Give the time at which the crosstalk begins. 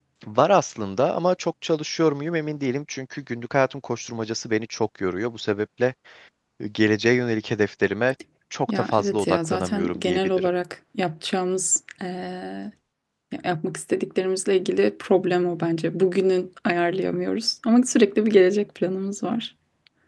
9 s

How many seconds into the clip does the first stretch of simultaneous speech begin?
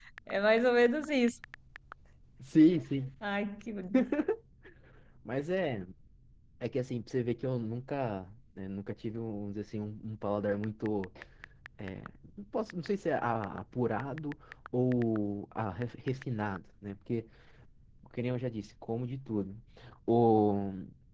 none

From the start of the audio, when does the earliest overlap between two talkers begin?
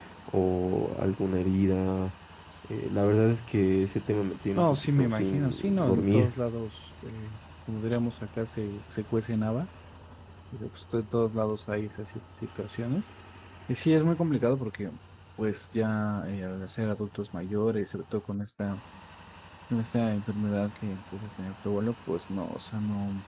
5 s

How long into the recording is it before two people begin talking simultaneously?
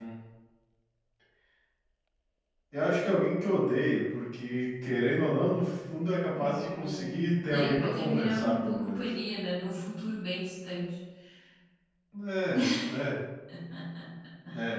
6 s

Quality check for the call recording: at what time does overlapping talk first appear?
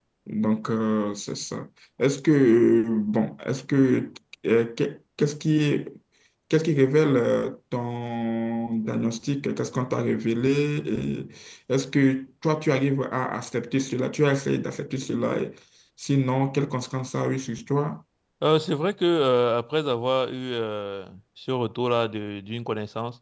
none

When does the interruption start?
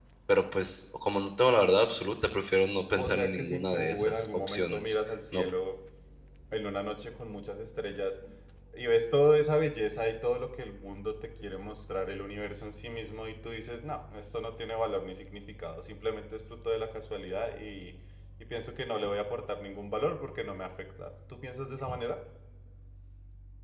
3 s

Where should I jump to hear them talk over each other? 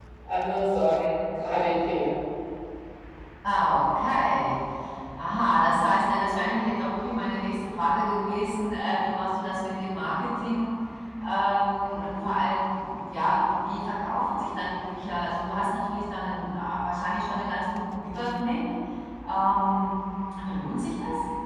none

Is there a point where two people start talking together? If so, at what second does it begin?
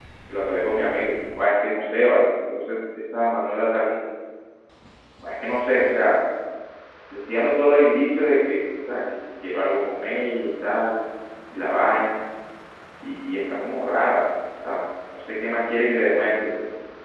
none

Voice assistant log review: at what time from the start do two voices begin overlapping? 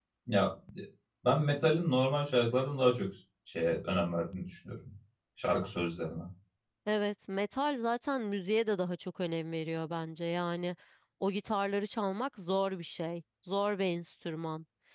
none

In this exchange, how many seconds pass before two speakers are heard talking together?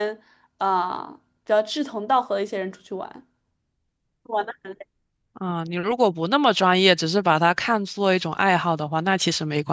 none

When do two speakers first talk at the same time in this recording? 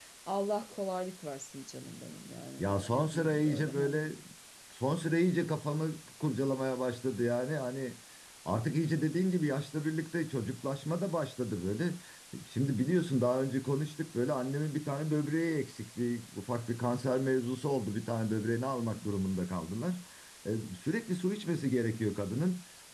3 s

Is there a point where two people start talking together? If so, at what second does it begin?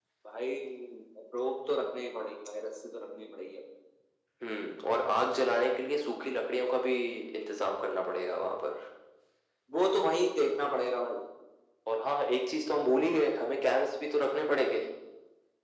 none

